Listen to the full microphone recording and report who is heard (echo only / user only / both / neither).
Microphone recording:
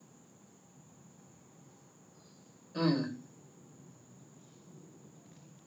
user only